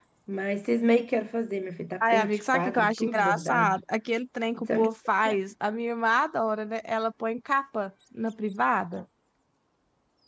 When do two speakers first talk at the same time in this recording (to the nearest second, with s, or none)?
2 s